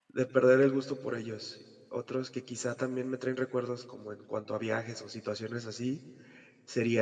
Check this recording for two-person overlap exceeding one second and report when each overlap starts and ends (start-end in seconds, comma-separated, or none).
none